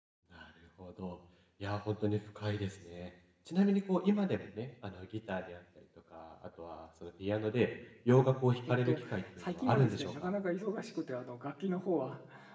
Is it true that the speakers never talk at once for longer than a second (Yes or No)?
No